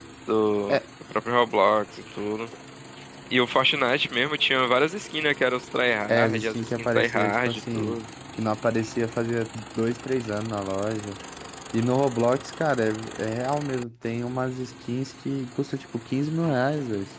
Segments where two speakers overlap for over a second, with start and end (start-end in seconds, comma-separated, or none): 6.1-8.0